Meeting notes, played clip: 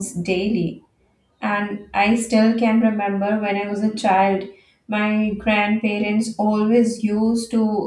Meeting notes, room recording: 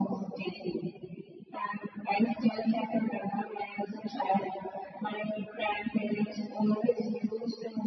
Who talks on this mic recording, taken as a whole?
echo only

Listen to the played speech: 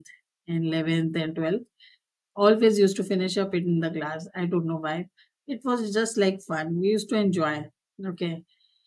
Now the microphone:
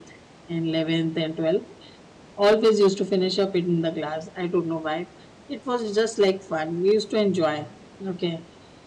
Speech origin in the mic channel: echo only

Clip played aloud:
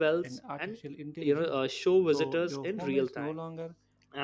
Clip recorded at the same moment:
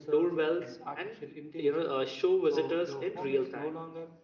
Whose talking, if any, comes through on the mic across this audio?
echo only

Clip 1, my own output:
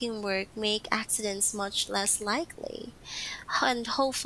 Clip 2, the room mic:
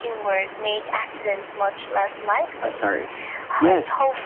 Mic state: both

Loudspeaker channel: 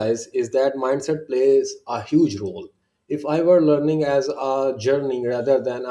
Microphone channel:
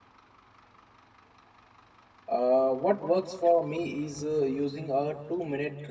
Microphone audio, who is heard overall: user only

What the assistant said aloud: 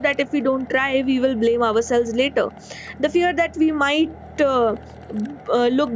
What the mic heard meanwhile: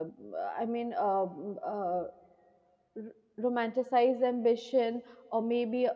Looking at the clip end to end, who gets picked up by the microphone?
user only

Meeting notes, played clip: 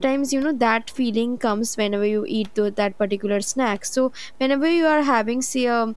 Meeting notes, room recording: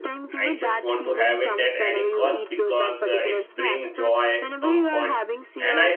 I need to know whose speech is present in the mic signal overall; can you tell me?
both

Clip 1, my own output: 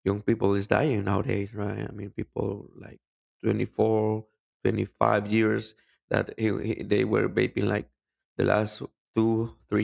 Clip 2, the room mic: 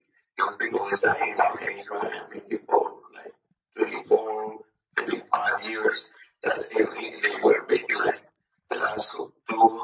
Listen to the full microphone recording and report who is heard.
echo only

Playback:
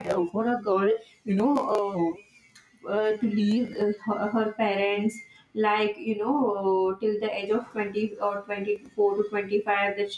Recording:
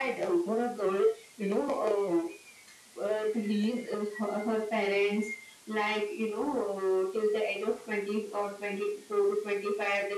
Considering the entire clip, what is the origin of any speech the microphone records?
echo only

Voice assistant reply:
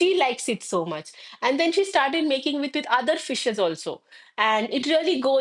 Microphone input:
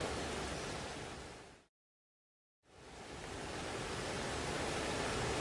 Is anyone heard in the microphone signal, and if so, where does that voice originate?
neither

